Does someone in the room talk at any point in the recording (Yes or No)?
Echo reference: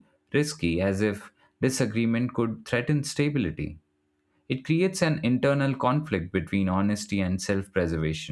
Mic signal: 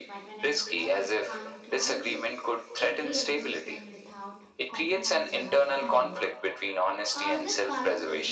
Yes